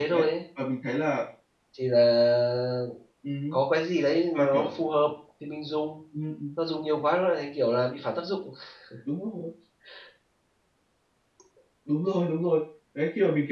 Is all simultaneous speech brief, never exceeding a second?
Yes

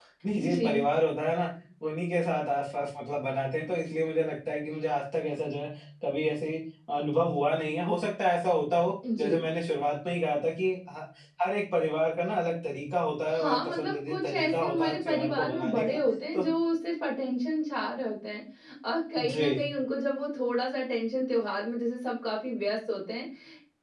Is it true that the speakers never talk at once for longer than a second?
No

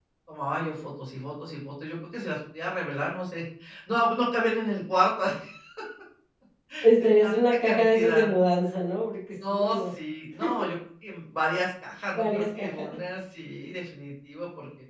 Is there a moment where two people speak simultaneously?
Yes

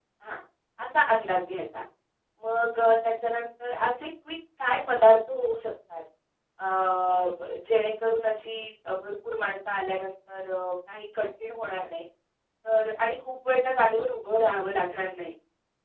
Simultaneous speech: No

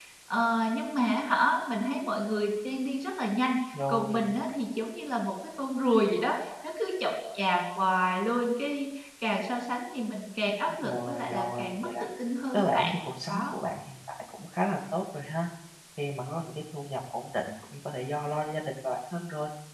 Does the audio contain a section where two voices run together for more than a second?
Yes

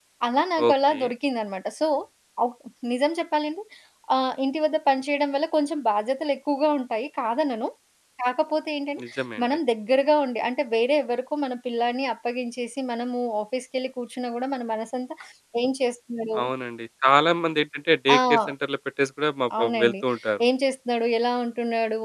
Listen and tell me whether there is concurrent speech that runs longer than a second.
No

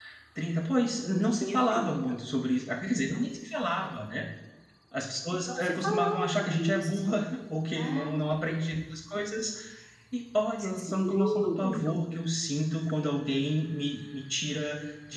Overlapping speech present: Yes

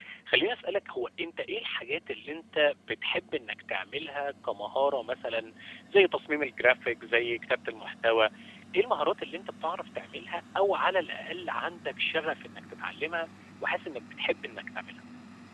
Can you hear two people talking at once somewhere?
No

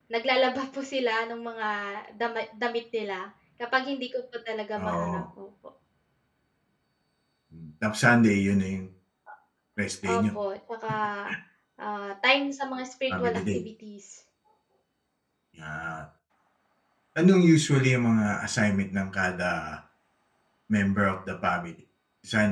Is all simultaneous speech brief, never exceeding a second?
Yes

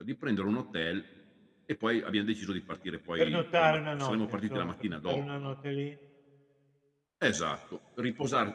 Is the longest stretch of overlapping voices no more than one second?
No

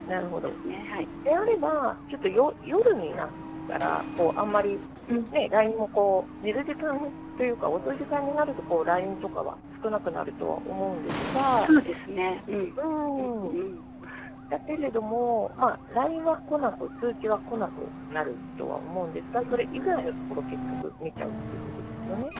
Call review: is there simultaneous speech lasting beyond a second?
No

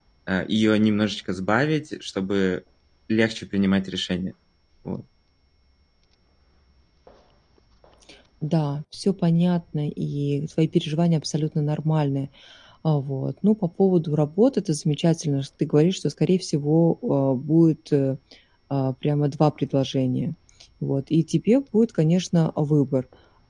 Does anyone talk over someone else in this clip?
No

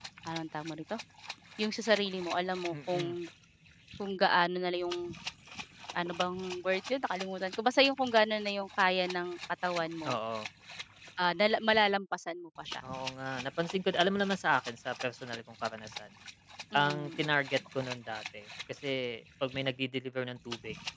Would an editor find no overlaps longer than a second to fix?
Yes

